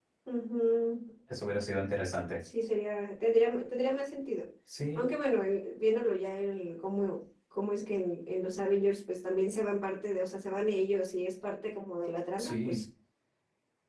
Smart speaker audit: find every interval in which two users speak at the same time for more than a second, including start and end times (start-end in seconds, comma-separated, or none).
none